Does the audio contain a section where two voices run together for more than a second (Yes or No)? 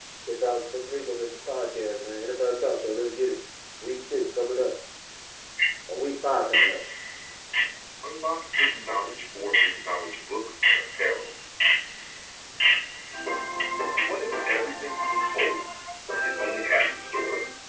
No